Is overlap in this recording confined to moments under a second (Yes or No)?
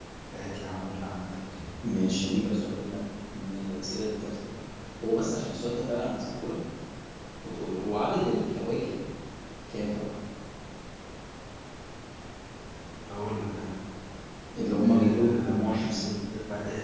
No